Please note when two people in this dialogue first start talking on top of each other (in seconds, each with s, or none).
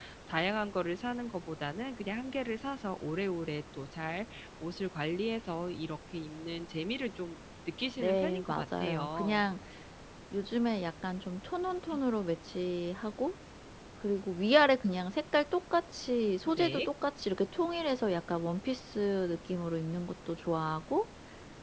8.0 s